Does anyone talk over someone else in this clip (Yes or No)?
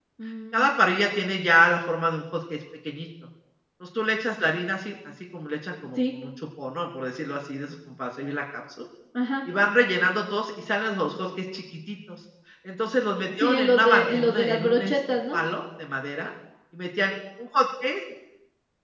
Yes